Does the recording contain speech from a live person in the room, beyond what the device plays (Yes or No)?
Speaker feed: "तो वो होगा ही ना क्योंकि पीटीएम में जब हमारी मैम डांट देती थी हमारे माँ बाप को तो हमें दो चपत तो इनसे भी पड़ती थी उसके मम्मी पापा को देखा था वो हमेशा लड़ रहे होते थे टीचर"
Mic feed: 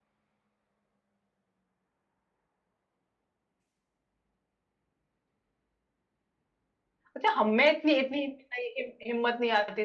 Yes